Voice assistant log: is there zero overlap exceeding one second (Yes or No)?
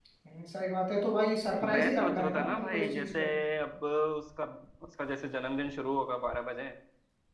No